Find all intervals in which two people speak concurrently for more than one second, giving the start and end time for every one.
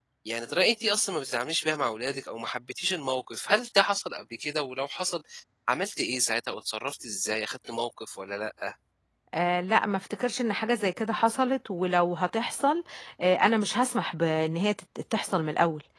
none

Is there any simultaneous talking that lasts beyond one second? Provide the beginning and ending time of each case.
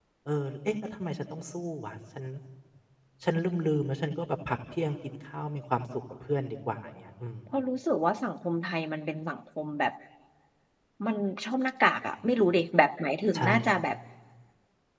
none

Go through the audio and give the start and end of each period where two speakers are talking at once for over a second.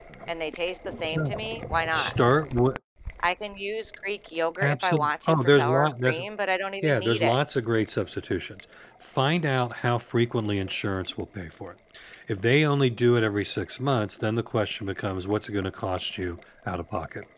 4.6-6.2

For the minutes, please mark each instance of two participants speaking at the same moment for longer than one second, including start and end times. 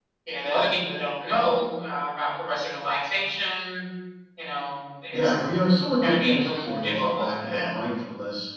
6.0-7.7

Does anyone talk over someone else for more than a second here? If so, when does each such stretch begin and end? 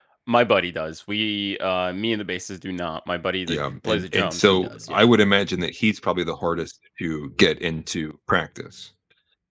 3.5-5.1

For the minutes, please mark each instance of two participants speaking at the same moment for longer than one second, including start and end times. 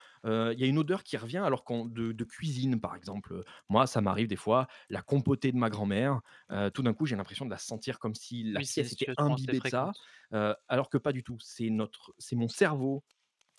8.5-9.9

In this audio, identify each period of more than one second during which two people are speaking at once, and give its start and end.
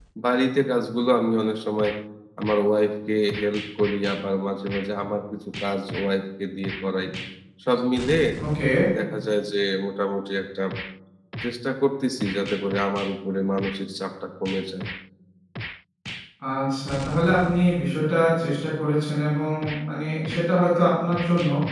none

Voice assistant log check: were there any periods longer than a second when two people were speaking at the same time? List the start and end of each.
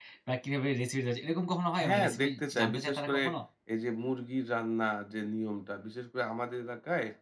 1.8-3.2

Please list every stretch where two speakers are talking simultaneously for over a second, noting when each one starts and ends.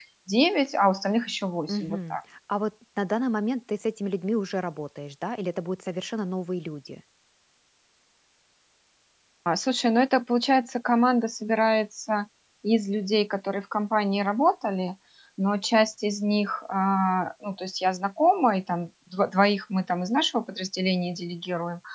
none

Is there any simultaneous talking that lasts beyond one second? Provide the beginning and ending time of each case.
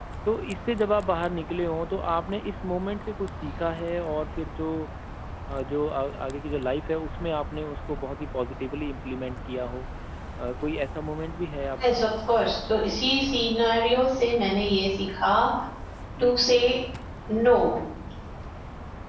none

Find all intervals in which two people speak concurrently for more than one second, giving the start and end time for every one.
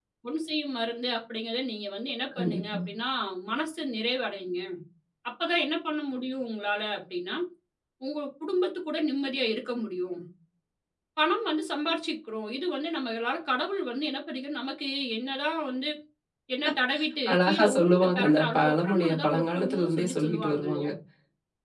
17.3-20.9

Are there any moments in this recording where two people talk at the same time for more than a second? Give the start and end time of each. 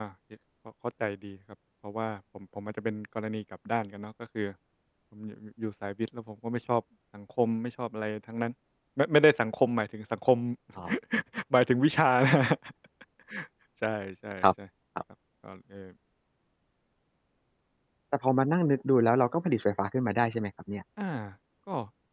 none

